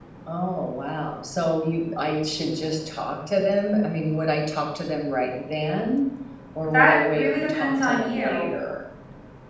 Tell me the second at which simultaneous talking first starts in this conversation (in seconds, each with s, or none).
6.6 s